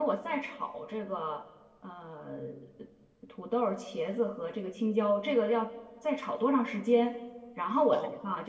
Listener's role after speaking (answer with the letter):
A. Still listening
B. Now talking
A